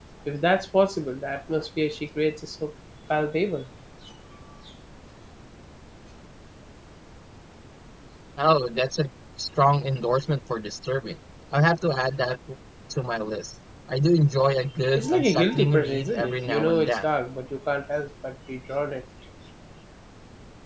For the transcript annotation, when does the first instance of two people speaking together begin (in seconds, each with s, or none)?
14.9 s